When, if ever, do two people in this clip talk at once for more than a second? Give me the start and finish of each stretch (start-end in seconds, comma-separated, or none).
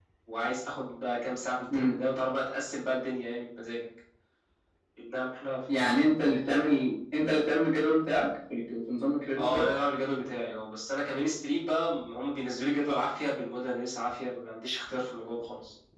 none